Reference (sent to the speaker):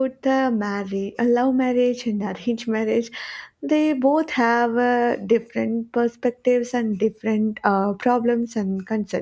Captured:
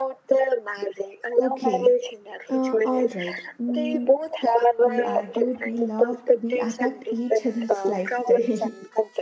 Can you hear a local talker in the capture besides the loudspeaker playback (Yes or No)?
Yes